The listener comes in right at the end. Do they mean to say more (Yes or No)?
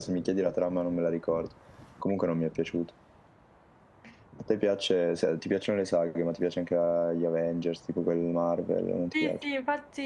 Yes